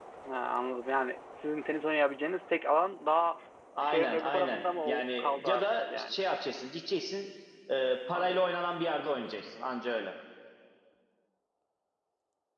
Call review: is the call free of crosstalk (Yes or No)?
No